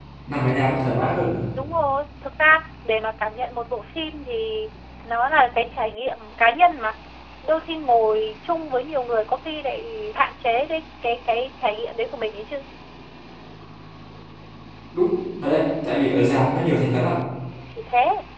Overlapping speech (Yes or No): No